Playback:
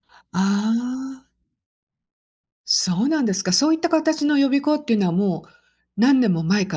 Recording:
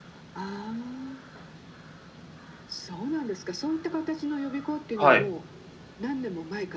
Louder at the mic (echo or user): user